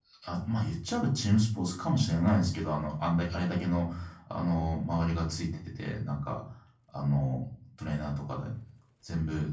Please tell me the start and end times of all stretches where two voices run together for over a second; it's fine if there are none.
none

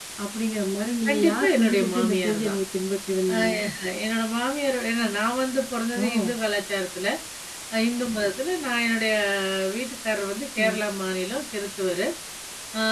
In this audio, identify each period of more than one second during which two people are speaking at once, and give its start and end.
1.1-2.6

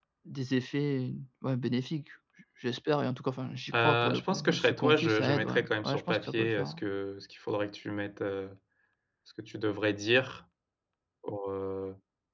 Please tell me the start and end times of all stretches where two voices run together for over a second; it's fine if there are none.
3.7-6.8

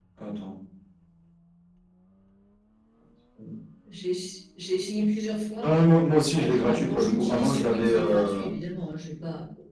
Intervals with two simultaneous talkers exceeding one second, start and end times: 6.3-8.4

